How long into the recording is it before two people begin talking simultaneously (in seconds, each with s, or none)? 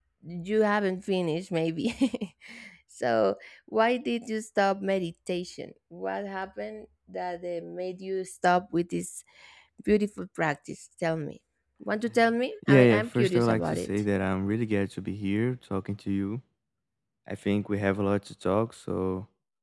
12.7 s